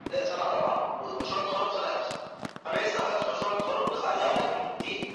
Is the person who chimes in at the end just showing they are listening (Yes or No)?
Yes